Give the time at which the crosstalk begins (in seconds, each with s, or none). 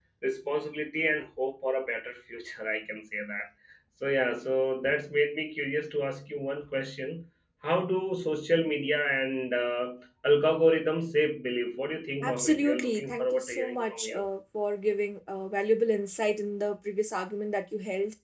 12.2 s